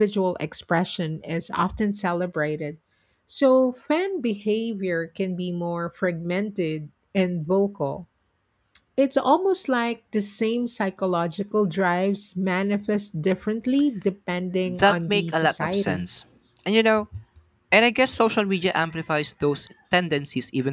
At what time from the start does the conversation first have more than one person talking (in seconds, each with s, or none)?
14.7 s